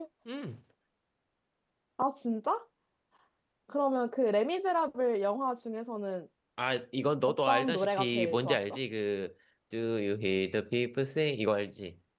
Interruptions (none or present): present